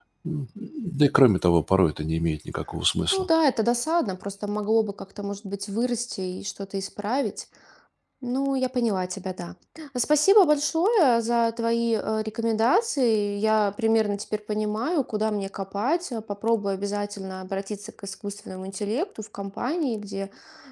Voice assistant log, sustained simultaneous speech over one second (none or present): none